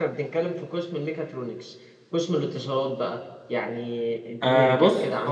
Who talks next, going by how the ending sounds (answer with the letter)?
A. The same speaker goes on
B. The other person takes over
B